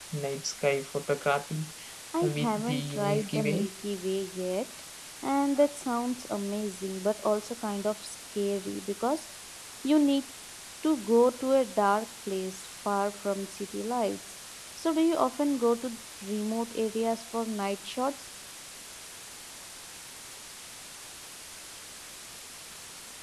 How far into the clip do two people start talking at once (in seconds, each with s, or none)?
2.4 s